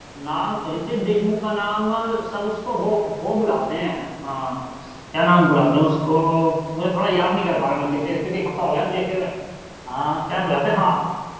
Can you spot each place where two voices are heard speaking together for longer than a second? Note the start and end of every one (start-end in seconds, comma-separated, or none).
none